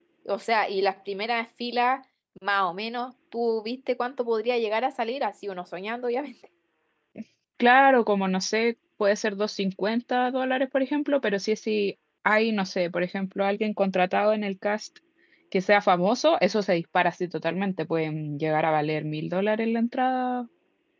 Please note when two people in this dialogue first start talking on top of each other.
none

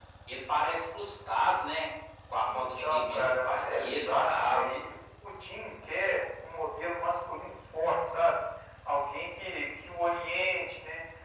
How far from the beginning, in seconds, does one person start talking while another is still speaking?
2.5 s

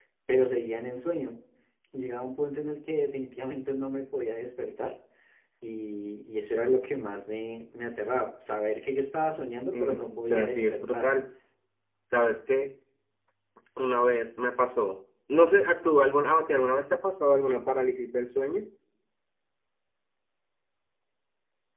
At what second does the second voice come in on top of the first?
9.7 s

